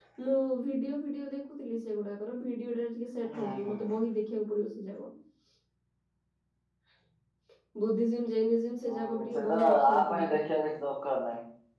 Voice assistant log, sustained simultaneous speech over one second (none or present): present